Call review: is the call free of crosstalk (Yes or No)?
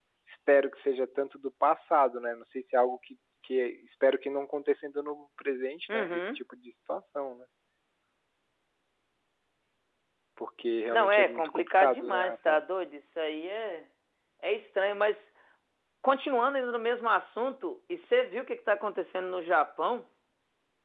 No